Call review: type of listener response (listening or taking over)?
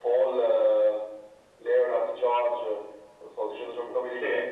taking over